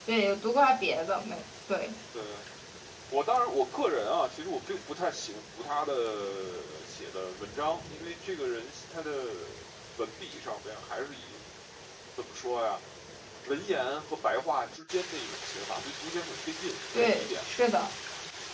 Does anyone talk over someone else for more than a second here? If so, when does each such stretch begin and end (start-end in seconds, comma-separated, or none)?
none